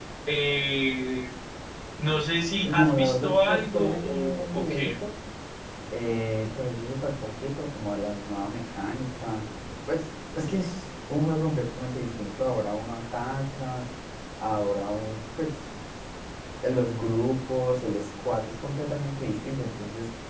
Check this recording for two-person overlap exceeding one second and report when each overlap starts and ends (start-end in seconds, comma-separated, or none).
2.6-5.0